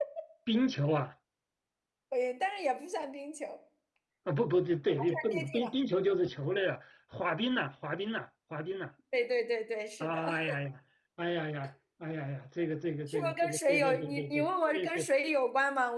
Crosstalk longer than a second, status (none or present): present